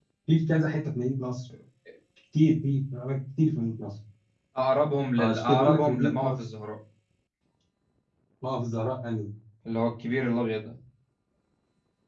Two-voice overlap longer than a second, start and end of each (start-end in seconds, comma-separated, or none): 5.2-6.4